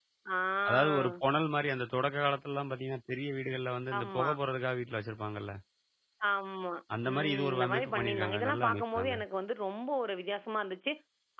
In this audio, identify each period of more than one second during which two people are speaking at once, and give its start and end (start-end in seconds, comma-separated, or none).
7.1-9.1